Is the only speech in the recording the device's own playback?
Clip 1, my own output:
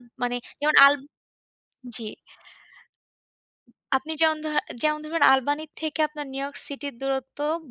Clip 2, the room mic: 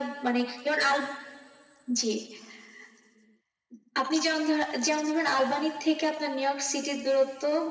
Yes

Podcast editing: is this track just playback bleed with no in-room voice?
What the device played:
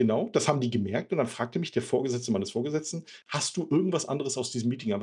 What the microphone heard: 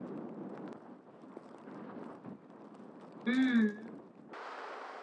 No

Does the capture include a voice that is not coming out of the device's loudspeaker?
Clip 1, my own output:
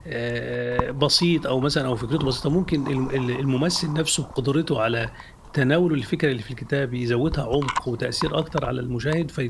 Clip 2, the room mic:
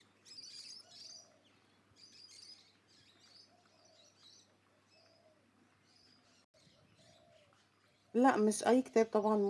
Yes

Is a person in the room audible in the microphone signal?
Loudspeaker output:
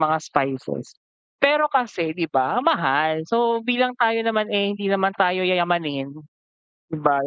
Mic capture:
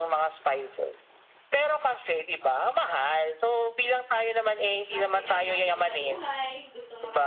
Yes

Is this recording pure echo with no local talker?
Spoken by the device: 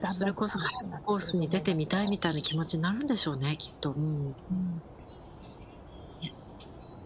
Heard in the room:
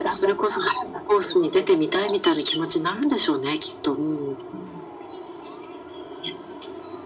Yes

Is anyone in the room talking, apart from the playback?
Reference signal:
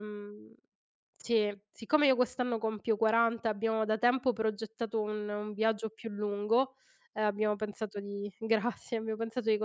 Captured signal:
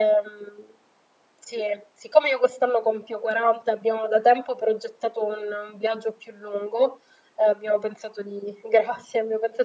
No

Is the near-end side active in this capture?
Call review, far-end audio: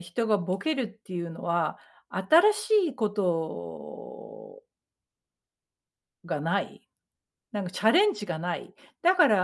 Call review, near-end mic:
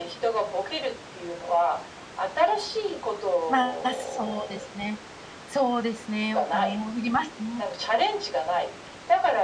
Yes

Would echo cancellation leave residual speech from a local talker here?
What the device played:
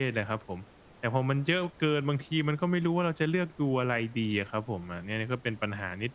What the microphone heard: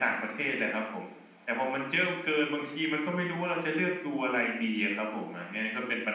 No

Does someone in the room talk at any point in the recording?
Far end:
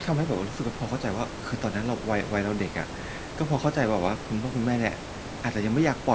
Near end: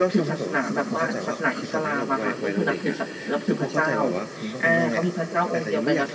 Yes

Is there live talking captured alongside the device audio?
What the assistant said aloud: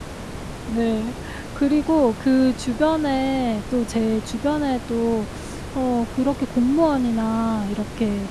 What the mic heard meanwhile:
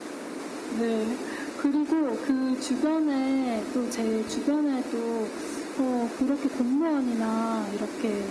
No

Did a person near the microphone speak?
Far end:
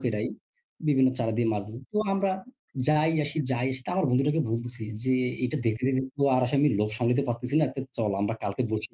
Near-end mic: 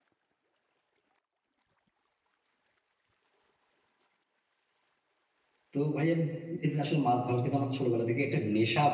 Yes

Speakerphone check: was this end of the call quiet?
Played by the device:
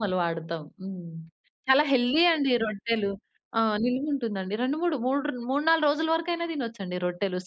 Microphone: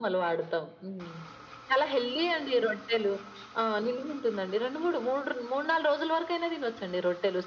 Yes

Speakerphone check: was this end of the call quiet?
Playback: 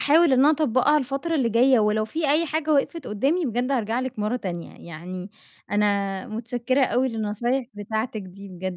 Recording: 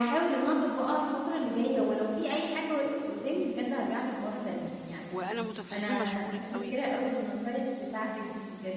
No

